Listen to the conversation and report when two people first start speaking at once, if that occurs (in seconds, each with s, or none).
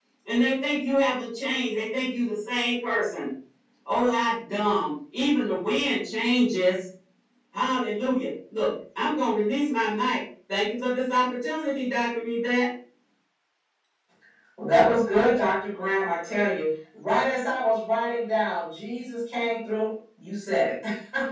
none